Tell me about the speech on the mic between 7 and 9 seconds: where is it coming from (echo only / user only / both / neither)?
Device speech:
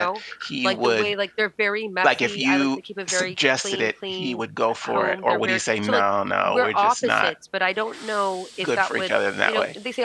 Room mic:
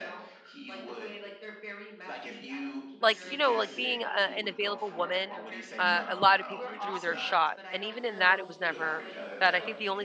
both